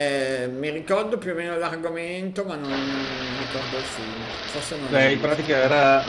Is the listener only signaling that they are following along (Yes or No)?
No